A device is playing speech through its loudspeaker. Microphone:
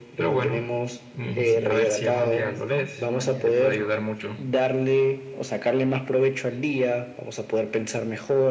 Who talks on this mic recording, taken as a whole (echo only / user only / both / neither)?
both